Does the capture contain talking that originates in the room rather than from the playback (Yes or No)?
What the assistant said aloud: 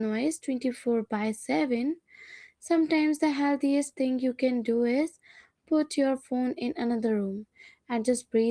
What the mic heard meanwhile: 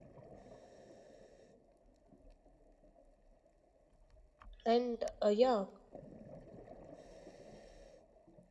Yes